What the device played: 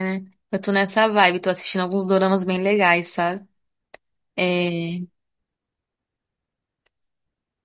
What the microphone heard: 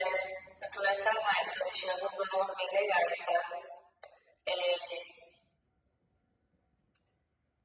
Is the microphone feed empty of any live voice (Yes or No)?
Yes